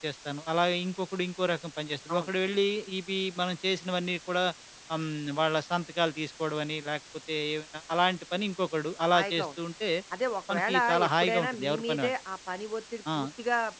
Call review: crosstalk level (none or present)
present